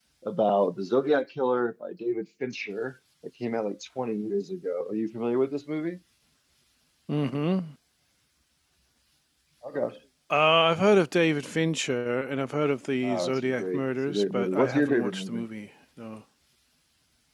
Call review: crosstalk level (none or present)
present